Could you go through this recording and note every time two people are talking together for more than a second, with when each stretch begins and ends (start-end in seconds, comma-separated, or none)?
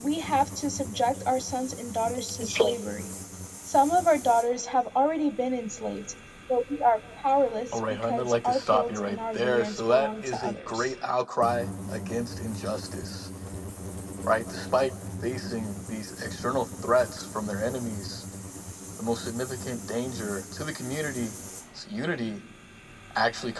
7.7-10.9